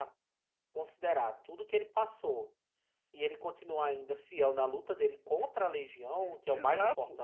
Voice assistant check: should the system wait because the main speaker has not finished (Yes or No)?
Yes